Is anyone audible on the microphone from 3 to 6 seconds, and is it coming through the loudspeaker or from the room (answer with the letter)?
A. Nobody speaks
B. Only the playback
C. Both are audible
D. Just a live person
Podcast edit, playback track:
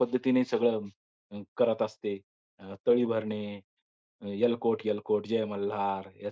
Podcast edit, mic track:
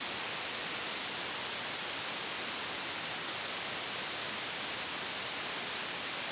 A